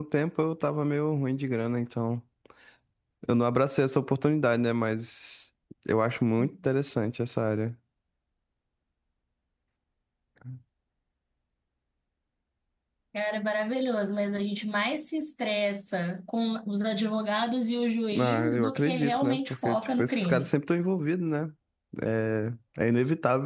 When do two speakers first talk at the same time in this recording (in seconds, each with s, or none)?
18.1 s